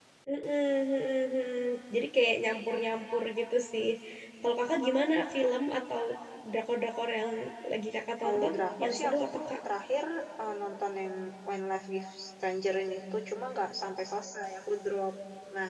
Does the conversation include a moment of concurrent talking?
Yes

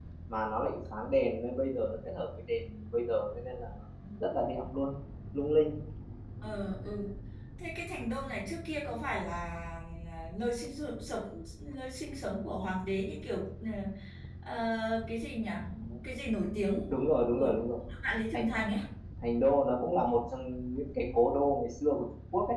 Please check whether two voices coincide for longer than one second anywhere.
No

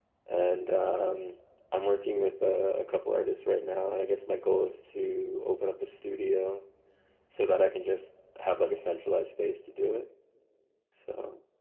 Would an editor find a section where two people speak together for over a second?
No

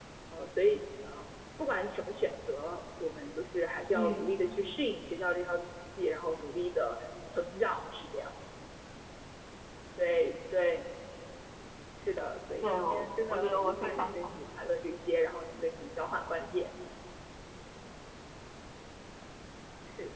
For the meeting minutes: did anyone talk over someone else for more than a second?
Yes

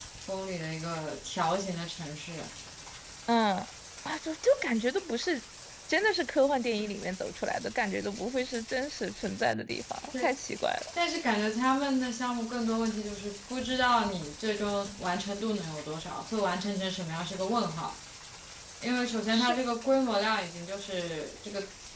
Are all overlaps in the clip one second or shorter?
Yes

